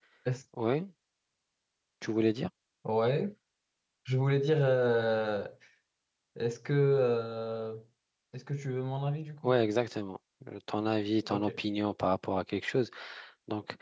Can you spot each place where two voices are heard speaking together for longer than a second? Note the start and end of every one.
none

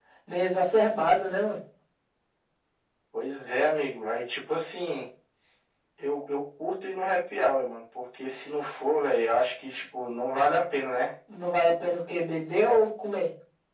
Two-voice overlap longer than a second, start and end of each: none

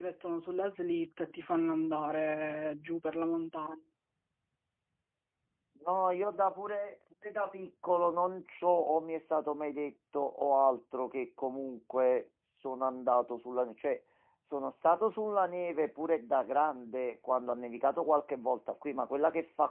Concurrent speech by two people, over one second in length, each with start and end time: none

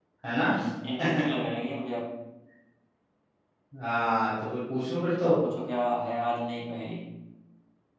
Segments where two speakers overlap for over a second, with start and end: none

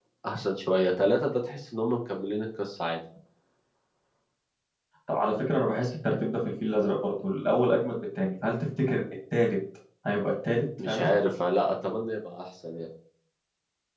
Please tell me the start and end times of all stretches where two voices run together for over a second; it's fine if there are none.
none

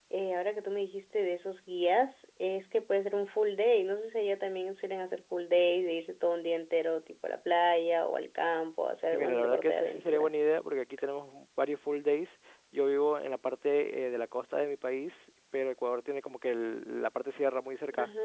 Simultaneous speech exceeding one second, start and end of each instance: 9.0-10.3

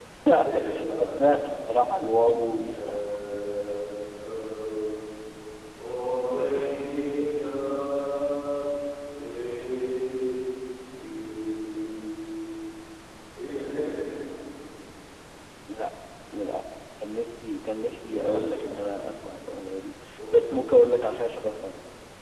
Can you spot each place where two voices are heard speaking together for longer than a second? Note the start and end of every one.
1.2-2.8, 17.7-18.9

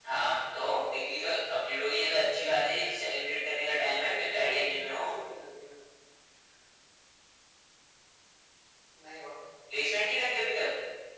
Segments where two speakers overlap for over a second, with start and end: 3.7-5.2

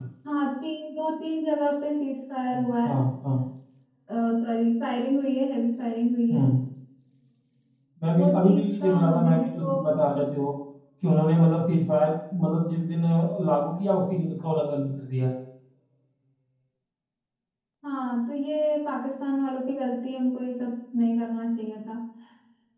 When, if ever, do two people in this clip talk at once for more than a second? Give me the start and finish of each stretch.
8.1-9.8

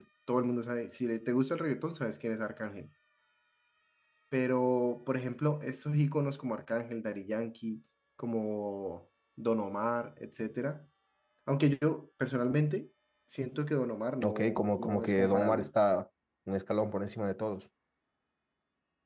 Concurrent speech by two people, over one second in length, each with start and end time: 14.2-15.7

